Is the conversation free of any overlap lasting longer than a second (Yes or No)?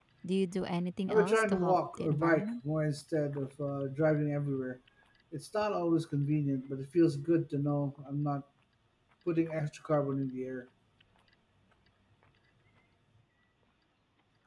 No